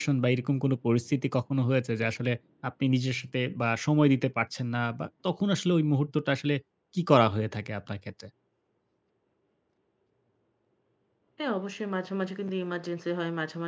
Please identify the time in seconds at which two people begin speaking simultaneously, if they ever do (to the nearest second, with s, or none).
none